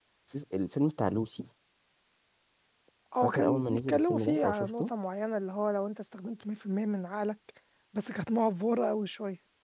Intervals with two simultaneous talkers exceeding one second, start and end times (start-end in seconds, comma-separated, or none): 3.2-4.9